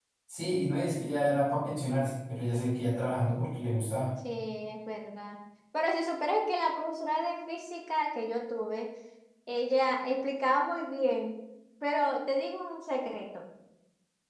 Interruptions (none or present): none